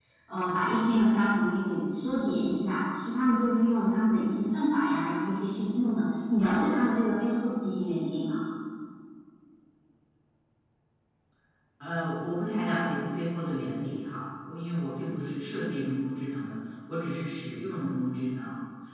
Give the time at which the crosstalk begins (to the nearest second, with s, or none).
none